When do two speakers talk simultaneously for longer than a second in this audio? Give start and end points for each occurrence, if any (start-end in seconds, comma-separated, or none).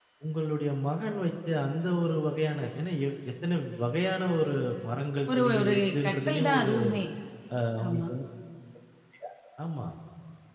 5.4-6.7